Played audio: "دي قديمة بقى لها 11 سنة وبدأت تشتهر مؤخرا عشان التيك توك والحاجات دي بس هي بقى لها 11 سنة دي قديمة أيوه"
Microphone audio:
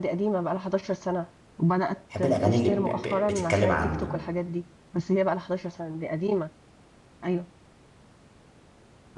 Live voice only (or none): بحب الاغاني اللي ب... ب... بتتكلم عني